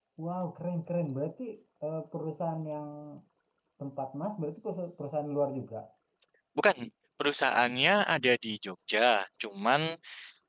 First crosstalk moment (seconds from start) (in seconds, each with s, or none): none